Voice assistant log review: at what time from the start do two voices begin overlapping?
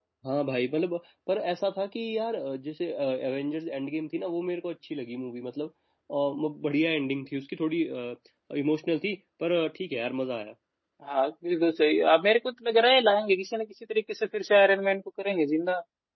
none

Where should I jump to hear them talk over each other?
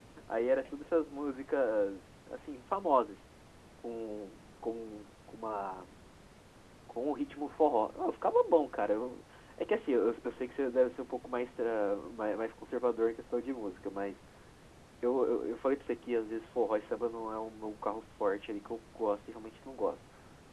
none

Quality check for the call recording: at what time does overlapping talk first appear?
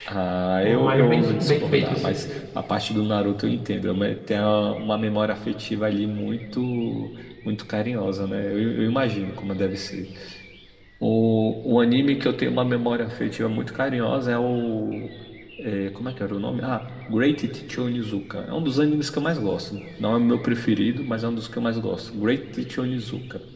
0.6 s

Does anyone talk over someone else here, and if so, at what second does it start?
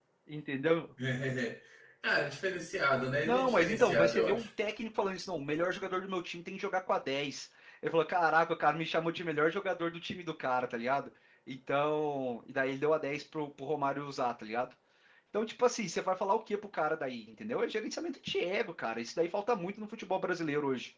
3.2 s

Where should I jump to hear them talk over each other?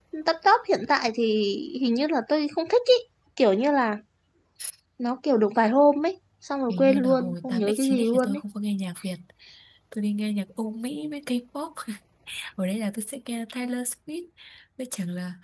6.7 s

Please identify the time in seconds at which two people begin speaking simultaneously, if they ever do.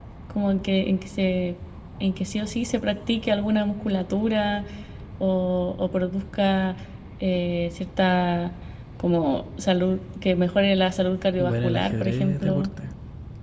11.4 s

